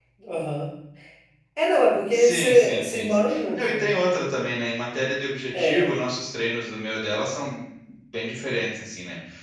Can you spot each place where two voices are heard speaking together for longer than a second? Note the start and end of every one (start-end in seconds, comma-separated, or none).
2.1-3.9